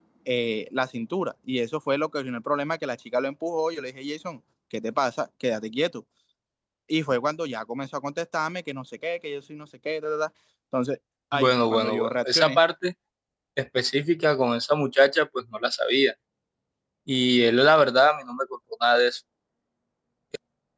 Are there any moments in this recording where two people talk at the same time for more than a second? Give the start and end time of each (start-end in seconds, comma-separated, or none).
11.3-12.6